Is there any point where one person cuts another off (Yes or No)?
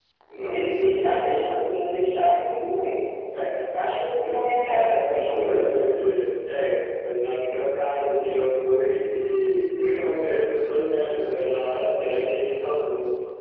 Yes